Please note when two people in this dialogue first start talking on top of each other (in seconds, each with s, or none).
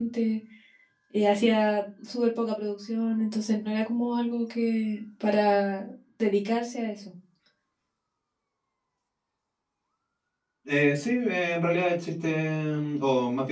none